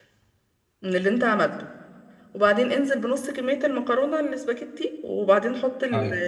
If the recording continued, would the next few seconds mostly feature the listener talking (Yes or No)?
No